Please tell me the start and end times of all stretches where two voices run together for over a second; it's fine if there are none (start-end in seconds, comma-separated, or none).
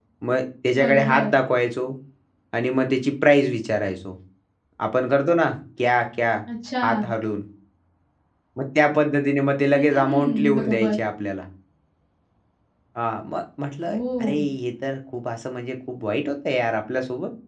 9.7-11.0